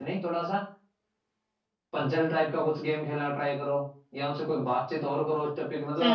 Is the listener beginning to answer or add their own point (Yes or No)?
No